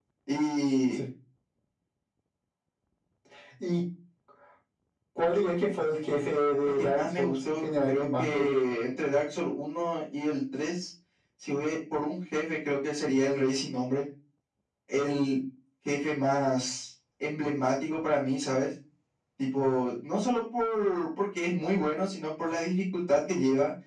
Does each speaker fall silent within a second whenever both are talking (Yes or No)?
No